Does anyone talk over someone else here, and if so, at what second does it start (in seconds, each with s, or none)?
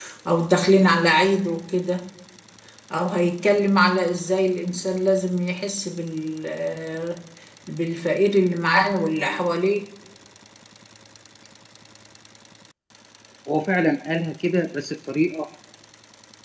none